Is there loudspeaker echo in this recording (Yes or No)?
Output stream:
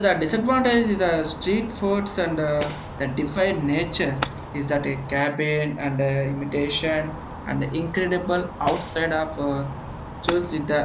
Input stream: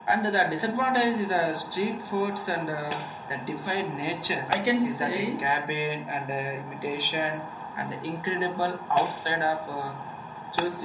Yes